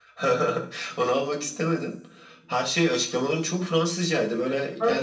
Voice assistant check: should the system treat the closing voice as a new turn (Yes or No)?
Yes